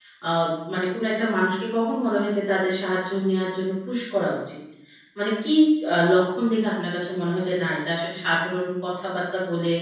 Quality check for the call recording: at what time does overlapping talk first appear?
none

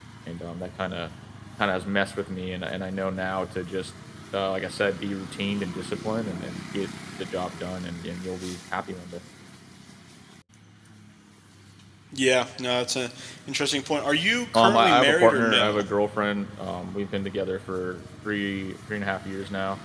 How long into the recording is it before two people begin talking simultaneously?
15 s

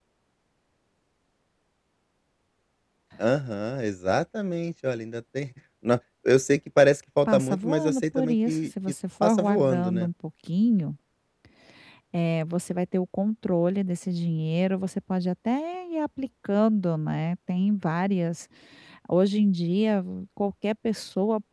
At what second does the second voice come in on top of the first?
7 s

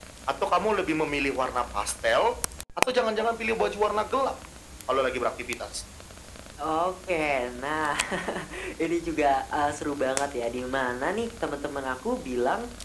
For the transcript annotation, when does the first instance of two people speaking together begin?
none

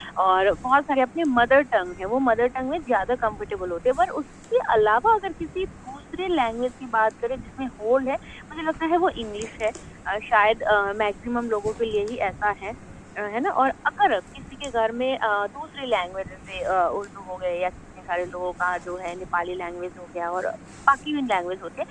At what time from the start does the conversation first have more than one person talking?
none

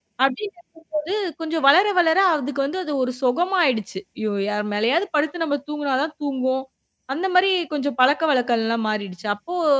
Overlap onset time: none

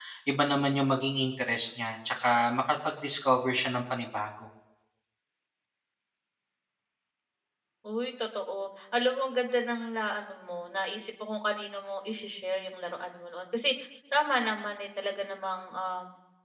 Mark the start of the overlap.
none

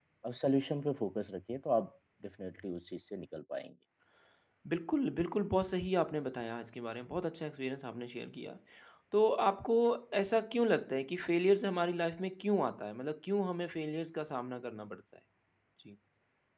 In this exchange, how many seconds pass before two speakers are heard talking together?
none

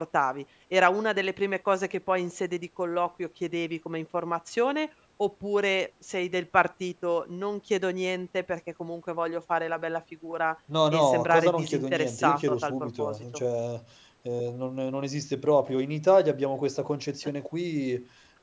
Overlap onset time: 11 s

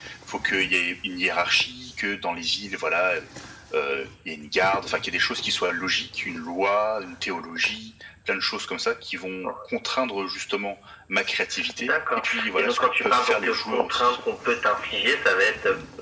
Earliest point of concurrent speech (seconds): 12 s

